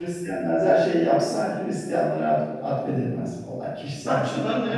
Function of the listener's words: taking over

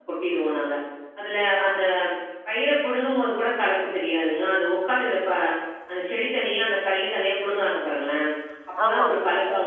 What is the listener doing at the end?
listening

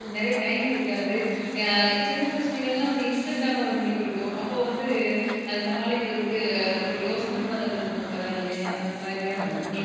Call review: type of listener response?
listening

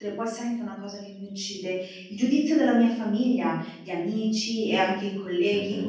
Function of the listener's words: listening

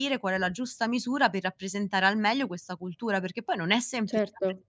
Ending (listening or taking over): listening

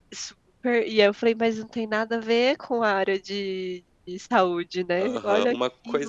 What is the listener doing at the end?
taking over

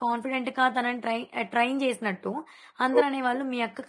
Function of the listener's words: listening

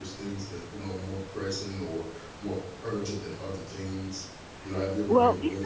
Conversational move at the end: taking over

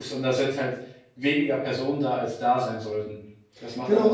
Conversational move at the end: taking over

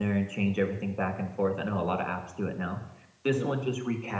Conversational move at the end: listening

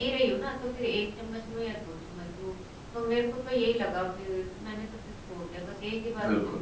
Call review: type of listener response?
taking over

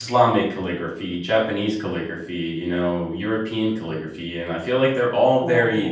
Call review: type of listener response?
listening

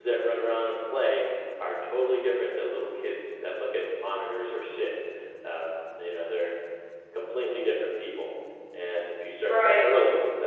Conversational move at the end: listening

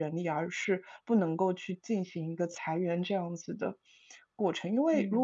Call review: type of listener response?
listening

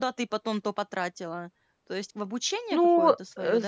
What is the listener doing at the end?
taking over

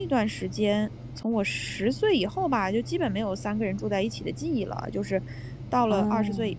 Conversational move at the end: listening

